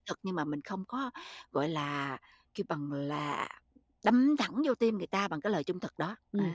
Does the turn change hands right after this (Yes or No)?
Yes